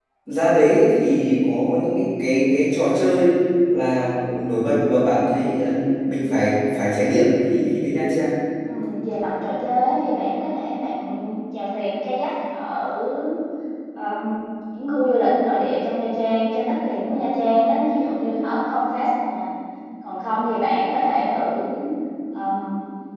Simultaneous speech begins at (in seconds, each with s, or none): none